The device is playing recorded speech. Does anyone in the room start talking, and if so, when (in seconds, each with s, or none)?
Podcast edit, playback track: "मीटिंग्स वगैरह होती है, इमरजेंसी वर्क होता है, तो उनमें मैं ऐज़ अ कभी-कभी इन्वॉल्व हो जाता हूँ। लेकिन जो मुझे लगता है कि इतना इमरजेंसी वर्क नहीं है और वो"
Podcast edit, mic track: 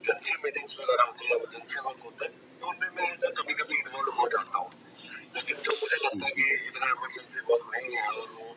6.1 s